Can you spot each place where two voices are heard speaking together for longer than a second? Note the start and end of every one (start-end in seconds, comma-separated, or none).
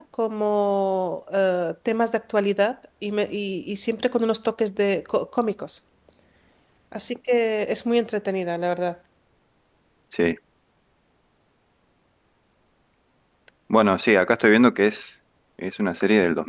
none